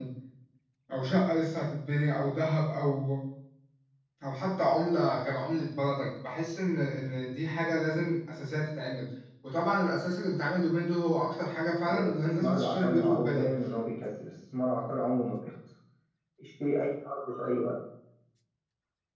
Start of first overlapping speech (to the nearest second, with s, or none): 12 s